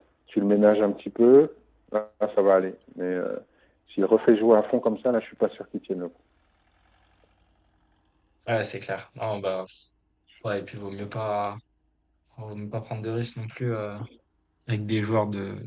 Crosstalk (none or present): none